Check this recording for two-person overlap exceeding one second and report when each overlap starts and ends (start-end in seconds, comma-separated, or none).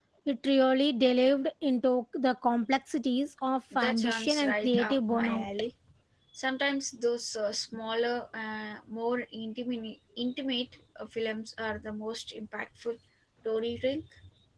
3.8-5.5